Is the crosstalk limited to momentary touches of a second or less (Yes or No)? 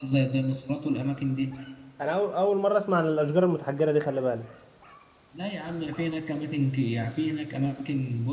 Yes